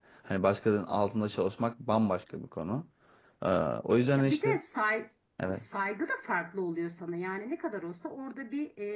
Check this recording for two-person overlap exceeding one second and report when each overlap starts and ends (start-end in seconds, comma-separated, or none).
none